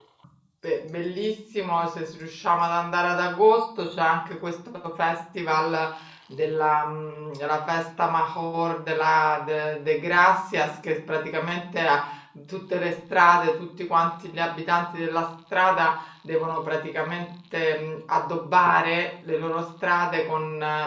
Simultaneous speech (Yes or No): No